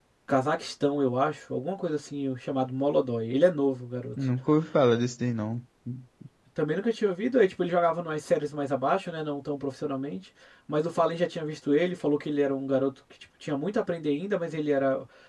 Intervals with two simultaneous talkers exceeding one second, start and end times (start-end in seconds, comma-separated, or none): none